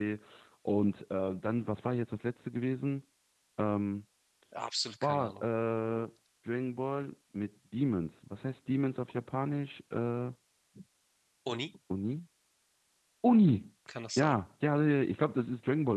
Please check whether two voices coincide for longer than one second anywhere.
No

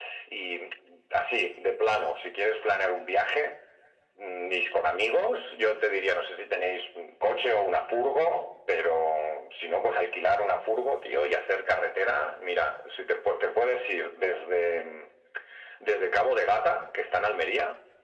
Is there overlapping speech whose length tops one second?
No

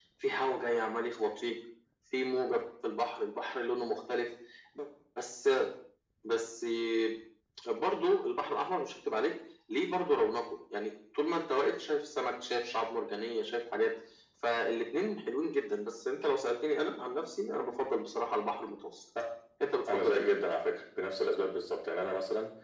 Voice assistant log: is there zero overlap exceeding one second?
Yes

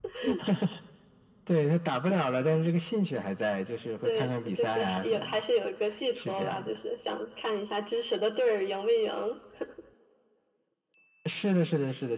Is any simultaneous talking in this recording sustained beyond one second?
Yes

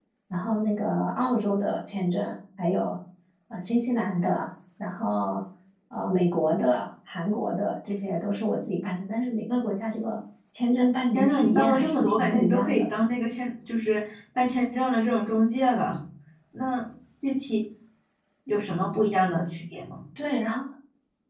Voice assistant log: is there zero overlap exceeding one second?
No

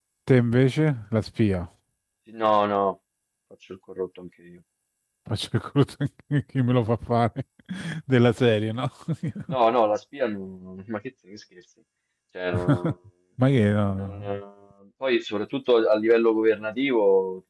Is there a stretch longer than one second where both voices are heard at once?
No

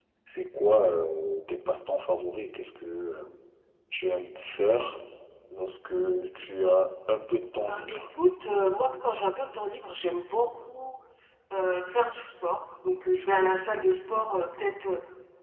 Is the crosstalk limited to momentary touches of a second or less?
Yes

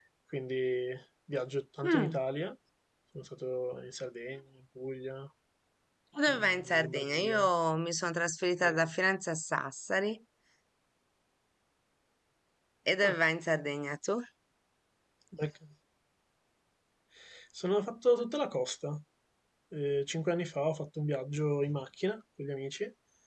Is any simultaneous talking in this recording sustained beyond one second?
Yes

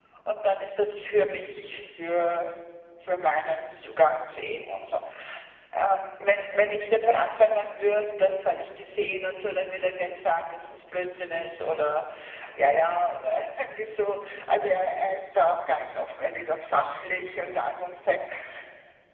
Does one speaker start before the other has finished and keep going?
No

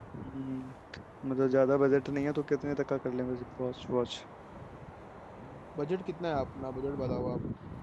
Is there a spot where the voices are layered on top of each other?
No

